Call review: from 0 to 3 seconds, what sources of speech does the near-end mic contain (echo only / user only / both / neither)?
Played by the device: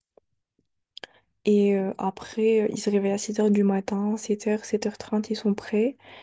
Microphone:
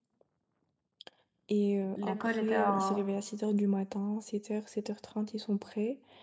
both